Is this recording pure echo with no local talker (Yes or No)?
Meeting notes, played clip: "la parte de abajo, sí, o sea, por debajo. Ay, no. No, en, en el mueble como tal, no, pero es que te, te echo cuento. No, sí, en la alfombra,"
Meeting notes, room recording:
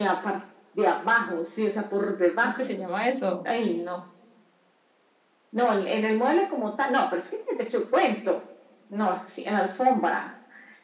No